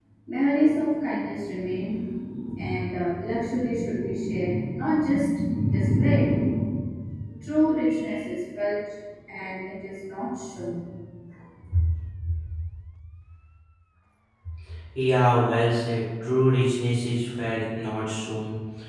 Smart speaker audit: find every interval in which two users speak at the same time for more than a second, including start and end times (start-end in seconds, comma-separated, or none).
none